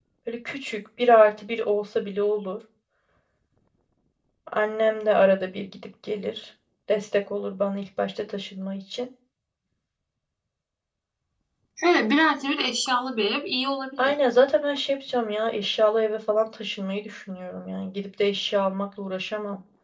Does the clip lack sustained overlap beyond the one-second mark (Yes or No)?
Yes